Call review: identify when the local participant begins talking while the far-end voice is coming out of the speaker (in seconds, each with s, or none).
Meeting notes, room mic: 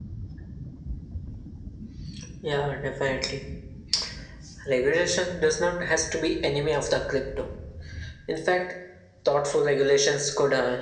none